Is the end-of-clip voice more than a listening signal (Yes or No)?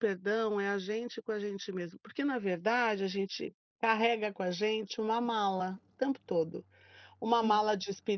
No